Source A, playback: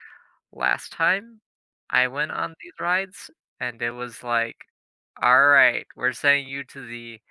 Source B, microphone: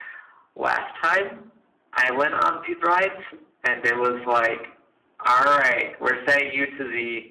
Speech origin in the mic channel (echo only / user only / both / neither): echo only